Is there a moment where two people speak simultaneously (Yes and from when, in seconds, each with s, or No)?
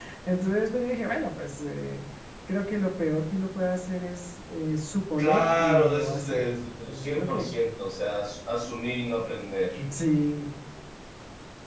Yes, from 5.2 s